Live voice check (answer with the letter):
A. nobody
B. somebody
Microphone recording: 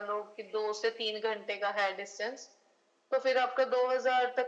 A